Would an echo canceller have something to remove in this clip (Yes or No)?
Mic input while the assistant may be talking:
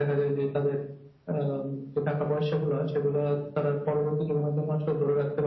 Yes